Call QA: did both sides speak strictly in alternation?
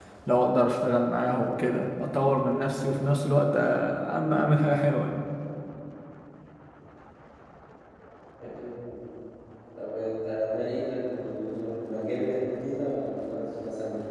Yes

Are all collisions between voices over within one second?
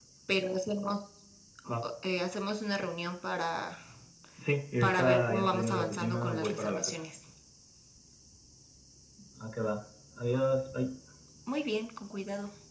No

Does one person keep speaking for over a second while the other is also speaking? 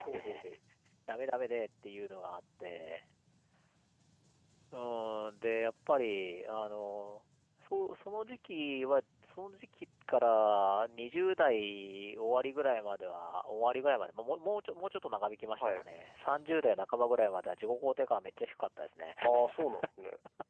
No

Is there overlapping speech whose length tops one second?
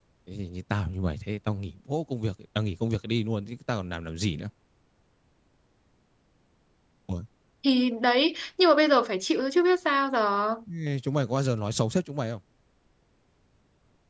No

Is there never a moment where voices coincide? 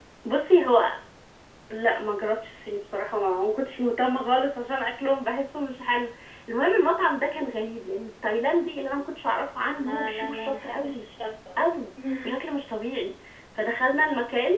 No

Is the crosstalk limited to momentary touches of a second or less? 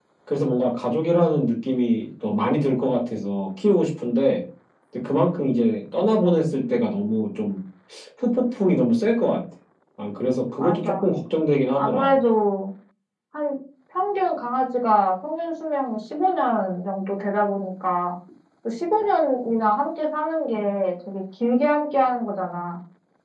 Yes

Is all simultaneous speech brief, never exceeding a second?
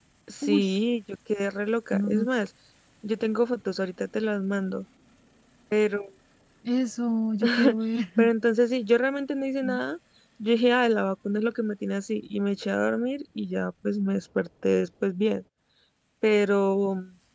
Yes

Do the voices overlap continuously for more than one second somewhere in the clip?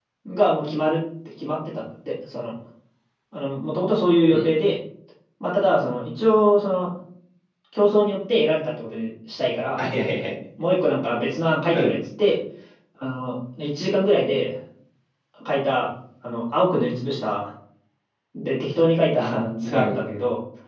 No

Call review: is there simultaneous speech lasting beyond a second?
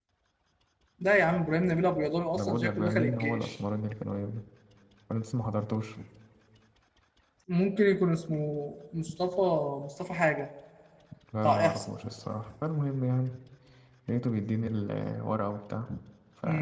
Yes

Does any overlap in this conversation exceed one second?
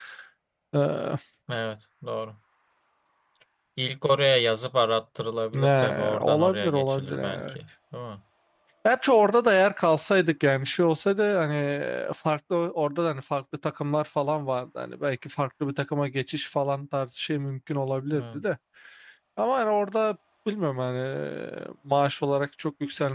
Yes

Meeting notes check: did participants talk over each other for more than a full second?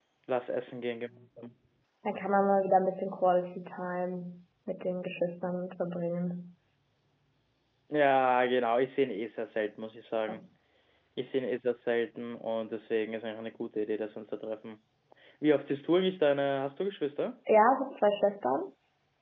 No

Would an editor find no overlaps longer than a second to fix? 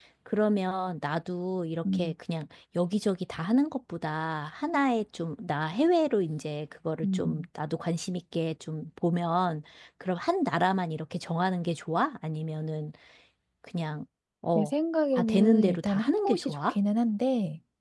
No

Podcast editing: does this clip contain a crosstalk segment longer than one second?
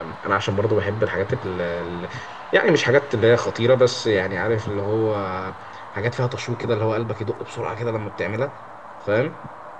No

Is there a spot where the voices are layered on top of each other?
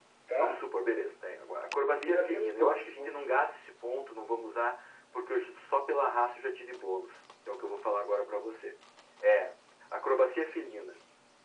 Yes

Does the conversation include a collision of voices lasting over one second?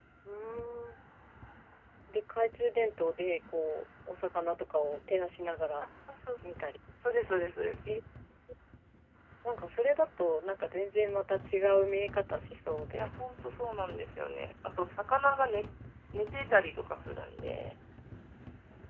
No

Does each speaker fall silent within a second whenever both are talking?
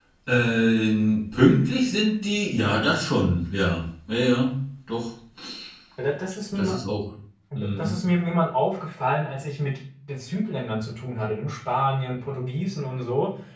Yes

